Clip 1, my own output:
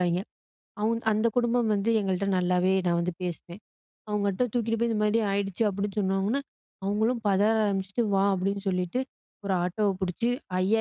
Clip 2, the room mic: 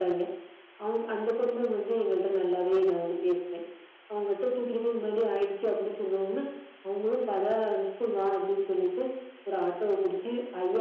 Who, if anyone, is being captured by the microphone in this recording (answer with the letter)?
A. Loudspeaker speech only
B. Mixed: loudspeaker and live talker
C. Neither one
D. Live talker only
A